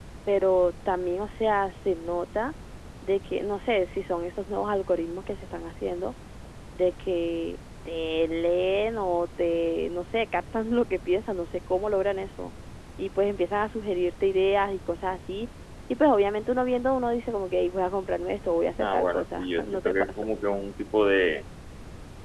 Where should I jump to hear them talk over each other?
19 s

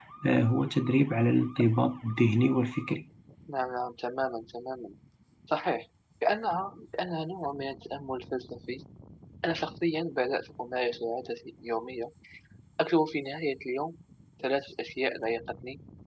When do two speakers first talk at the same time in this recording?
none

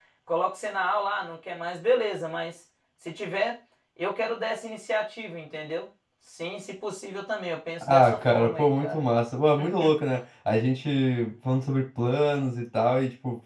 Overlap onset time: 8 s

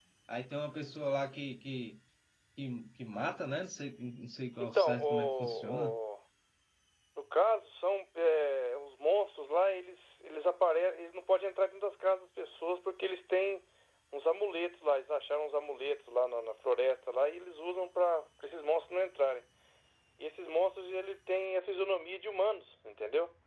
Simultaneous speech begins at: 5 s

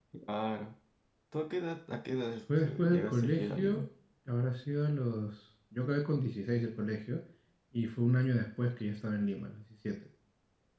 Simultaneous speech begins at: 2 s

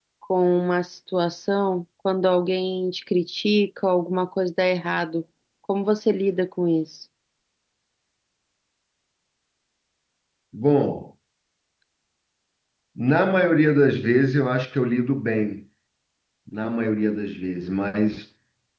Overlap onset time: none

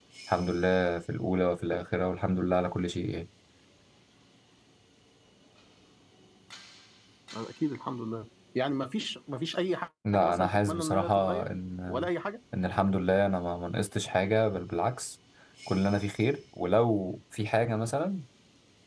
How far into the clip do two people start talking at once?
10 s

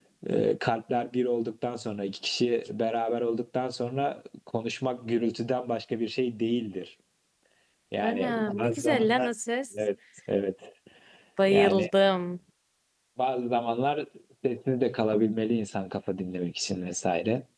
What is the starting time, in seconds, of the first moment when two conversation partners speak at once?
8 s

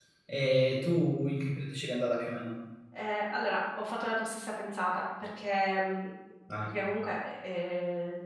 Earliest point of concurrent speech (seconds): none

